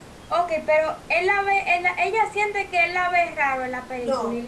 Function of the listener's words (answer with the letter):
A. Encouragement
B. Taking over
B